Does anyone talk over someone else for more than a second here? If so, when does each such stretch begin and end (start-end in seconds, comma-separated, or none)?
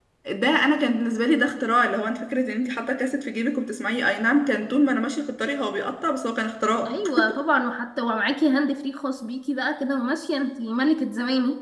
none